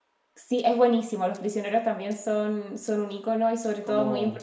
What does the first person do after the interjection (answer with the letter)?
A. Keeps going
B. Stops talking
A